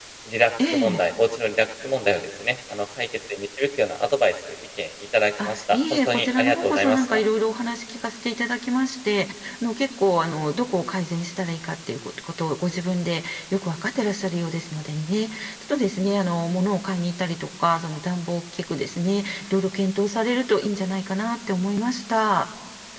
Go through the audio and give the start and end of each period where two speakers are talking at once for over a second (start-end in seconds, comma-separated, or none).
5.5-7.2